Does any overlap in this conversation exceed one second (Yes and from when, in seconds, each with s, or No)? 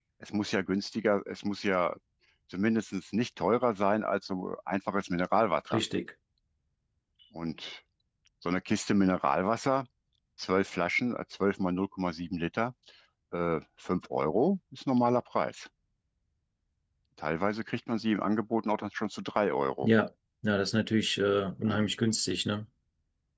No